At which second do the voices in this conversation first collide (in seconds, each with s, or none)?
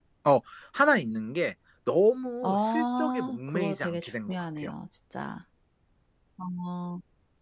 2.4 s